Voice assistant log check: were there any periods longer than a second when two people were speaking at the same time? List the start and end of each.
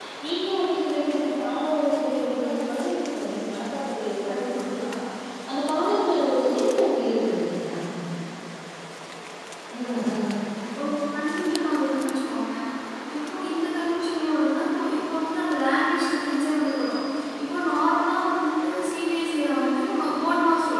none

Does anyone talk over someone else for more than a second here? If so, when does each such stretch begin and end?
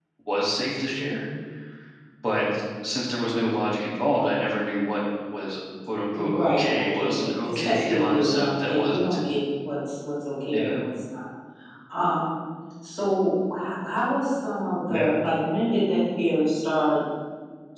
6.3-9.1

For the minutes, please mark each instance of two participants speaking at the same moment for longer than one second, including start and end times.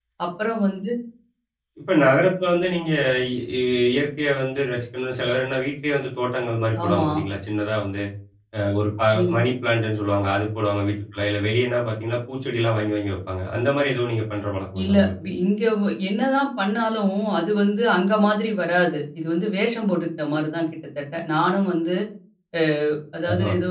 none

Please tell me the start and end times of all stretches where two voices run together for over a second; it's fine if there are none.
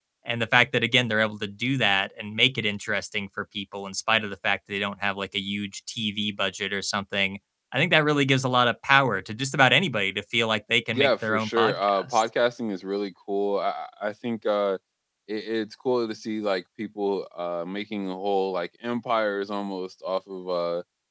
10.9-12.2

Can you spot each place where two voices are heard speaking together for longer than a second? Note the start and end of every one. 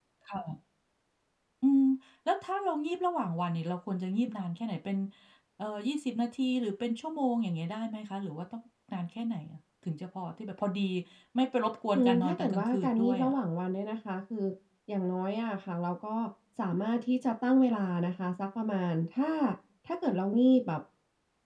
11.9-13.3

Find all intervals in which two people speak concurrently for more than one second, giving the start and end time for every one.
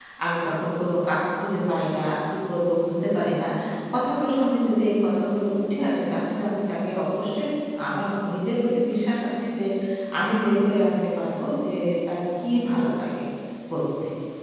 none

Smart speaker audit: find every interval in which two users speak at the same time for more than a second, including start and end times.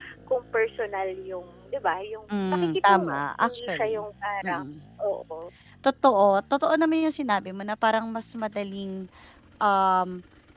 2.3-4.0

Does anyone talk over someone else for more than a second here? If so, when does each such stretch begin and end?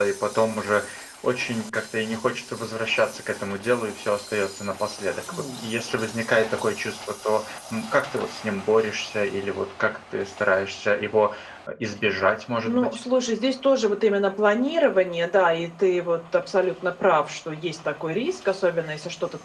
none

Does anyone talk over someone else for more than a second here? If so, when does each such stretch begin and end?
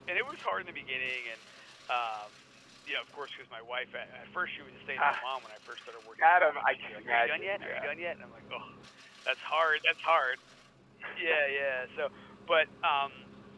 6.2-7.9

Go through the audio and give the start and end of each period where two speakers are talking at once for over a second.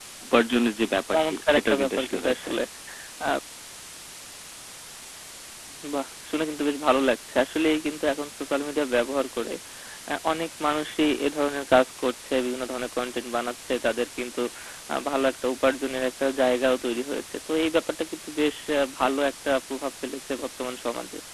1.1-2.5

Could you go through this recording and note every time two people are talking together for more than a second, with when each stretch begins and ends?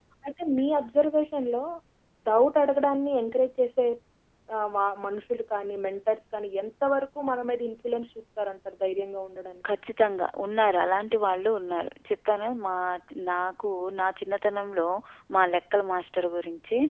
none

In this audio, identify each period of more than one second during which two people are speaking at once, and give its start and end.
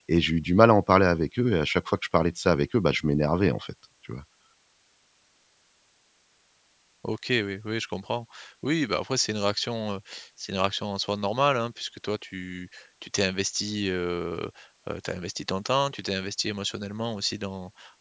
none

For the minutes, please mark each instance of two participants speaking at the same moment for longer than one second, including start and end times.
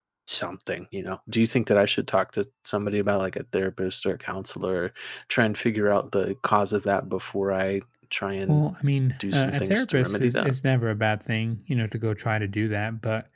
9.3-10.6

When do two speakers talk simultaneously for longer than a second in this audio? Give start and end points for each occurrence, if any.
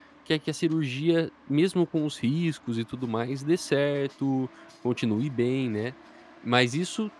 none

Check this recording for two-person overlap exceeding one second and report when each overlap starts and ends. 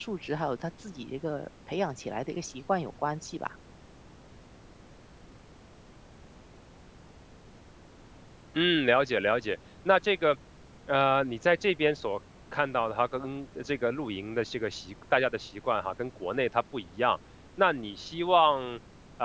none

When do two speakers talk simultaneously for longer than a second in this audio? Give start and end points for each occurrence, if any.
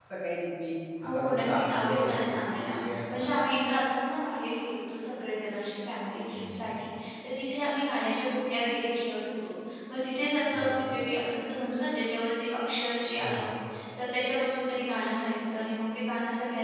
1.0-3.3

